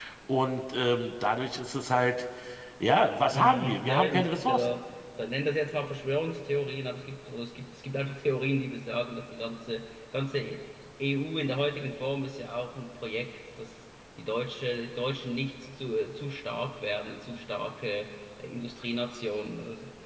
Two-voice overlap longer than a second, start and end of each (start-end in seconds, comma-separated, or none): 3.3-4.7